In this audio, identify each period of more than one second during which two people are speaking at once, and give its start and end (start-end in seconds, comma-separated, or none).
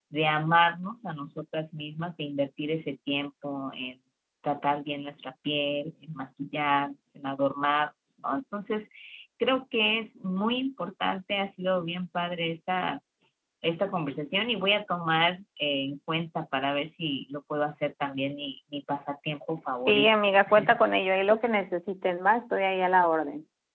none